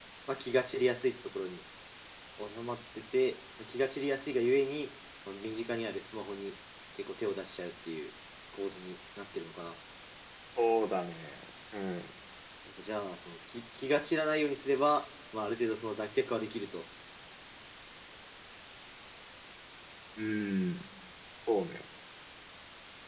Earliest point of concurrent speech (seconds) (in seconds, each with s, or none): none